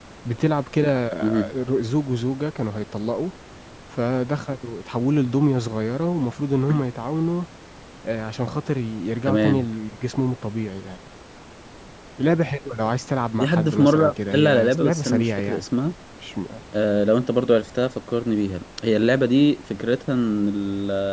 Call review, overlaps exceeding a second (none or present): present